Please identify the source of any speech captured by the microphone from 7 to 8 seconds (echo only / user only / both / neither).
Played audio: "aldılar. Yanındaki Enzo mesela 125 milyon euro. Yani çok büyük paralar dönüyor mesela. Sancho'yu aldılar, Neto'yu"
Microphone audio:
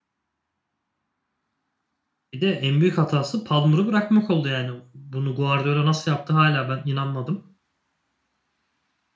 user only